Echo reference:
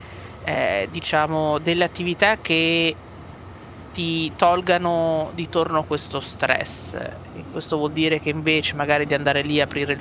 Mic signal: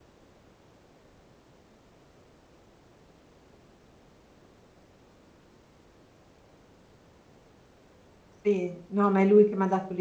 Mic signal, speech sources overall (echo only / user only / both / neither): user only